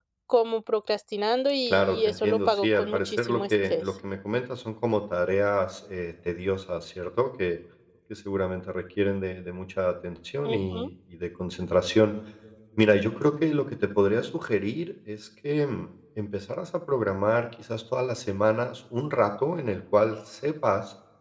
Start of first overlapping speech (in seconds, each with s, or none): 1.7 s